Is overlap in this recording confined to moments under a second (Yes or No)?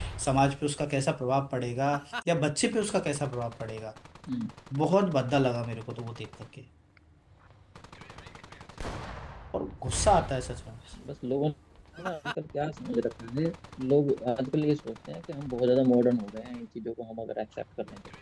Yes